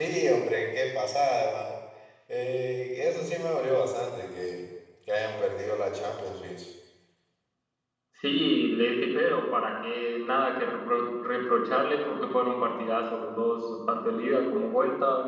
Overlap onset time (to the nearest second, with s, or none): none